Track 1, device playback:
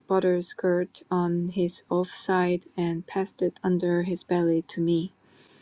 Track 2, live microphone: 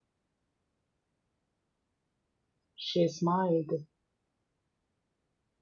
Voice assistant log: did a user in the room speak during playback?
Yes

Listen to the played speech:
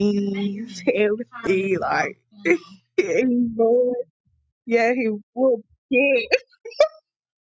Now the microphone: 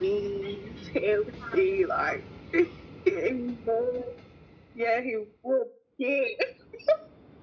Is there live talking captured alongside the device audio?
No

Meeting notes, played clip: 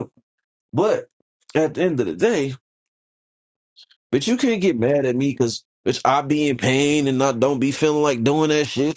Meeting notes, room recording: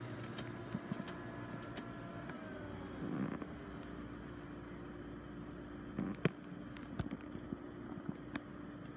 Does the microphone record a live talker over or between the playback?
No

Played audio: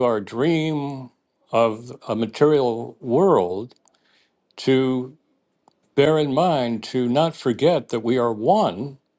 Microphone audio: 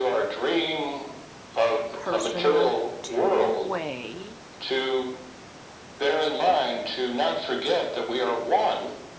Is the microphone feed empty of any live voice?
No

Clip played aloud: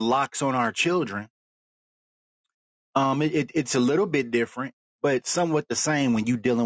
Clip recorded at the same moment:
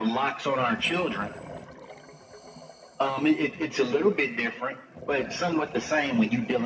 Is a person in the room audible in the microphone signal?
No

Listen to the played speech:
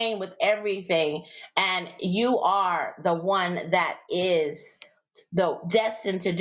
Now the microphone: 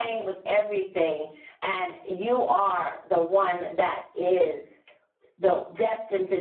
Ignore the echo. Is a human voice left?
No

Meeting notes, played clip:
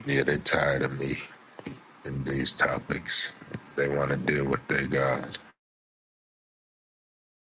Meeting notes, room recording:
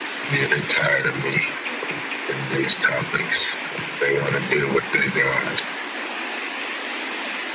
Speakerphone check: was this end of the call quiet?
Yes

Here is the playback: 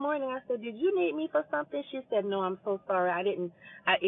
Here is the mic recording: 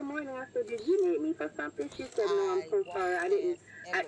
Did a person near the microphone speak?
Yes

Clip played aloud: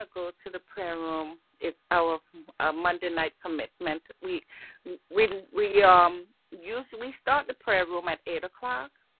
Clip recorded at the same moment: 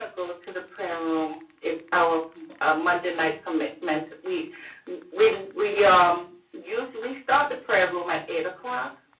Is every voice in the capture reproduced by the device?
Yes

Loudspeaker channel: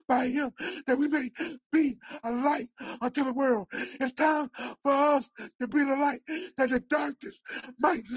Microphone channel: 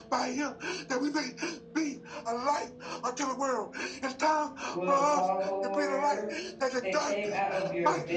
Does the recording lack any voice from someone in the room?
No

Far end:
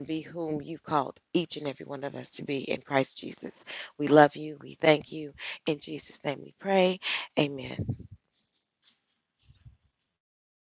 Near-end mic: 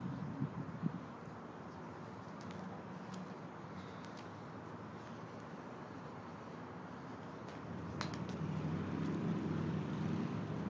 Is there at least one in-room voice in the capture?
No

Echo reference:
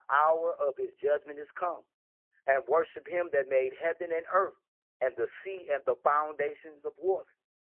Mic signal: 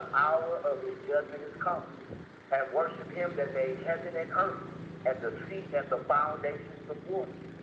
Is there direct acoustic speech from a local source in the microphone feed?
No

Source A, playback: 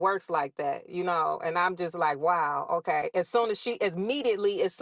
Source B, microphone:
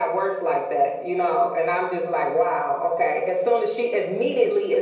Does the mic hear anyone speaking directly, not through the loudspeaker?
No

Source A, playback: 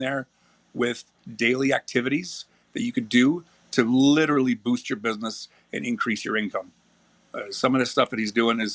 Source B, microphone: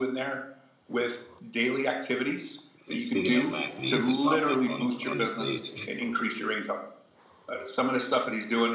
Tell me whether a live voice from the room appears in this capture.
Yes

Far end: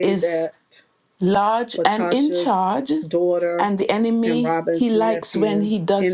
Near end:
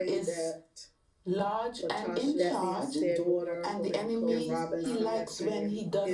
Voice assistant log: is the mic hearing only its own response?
No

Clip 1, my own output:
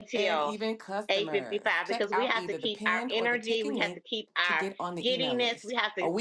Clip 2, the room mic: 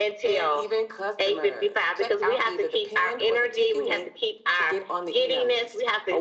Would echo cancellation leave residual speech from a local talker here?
No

